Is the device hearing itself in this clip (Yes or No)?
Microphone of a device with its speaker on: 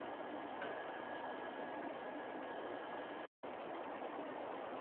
No